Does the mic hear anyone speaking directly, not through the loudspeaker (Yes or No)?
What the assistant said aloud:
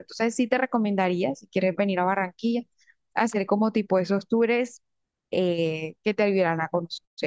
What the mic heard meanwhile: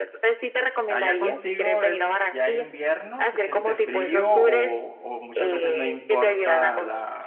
Yes